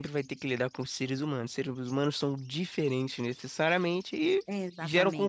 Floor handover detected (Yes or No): No